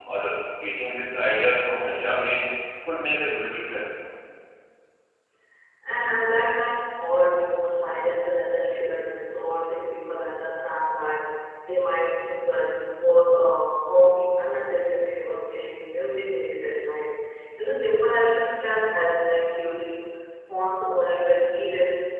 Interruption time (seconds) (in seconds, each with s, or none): none